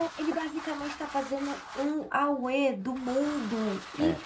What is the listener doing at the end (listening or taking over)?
listening